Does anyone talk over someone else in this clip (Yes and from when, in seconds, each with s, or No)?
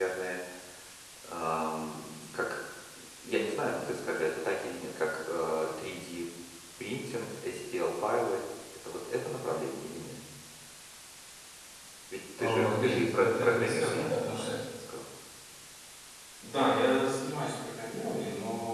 Yes, from 12.4 s